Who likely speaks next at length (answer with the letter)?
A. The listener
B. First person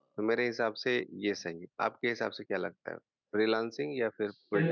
A